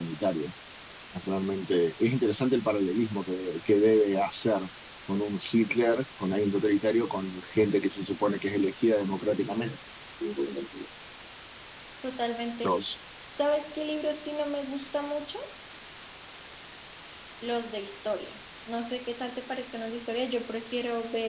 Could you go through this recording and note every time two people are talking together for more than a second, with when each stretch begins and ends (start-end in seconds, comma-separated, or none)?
none